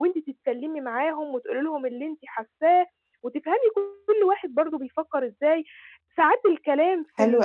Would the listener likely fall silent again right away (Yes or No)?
Yes